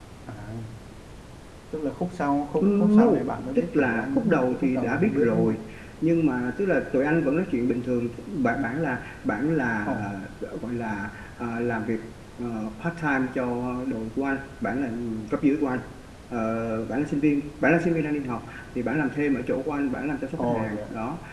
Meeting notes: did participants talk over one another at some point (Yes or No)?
Yes